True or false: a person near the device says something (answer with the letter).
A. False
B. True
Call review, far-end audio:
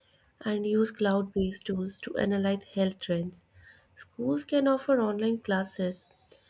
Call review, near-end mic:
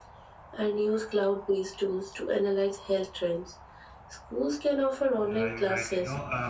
B